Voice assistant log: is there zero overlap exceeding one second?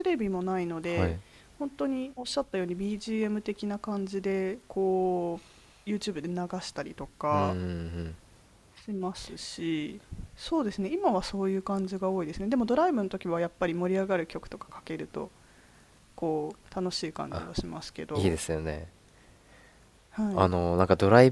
Yes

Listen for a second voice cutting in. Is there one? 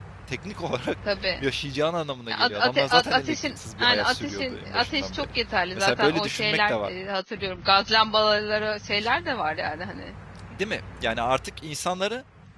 Yes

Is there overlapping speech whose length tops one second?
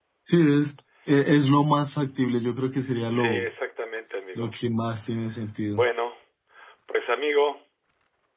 No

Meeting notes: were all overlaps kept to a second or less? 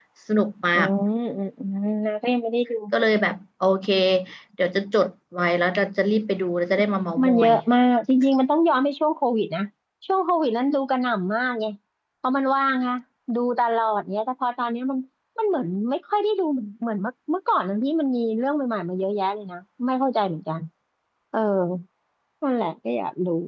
Yes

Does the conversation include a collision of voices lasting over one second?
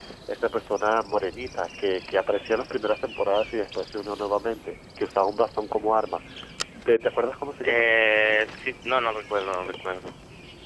No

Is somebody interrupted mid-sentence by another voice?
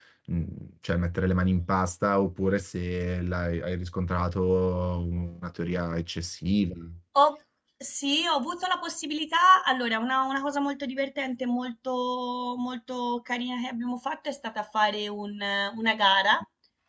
No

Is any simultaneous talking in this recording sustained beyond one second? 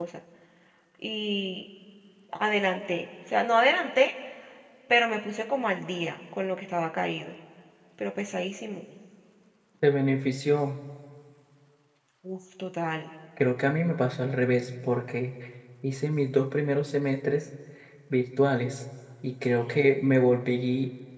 No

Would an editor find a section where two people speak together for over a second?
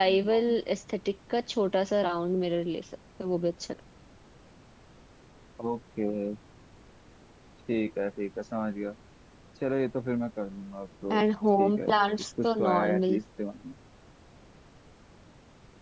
Yes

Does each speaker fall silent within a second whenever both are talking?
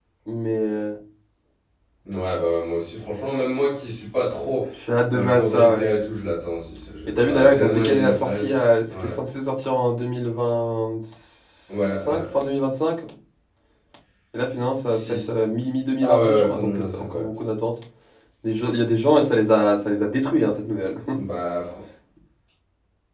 No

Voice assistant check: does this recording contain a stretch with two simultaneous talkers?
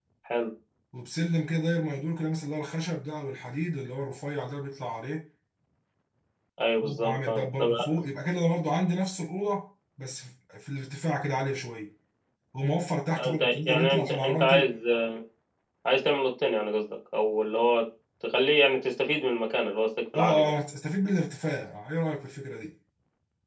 Yes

